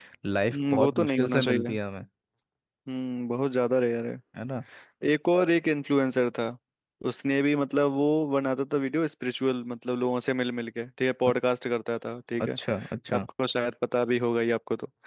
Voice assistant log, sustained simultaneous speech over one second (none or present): present